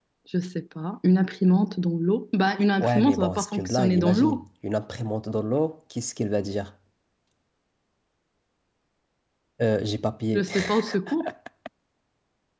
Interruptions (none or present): present